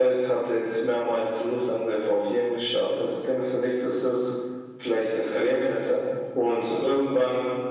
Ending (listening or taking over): listening